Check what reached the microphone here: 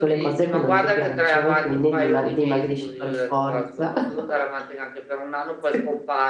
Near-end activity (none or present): present